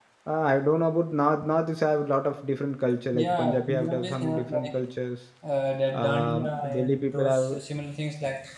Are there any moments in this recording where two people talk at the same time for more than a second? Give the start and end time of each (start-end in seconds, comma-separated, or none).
3.1-4.7, 5.9-7.5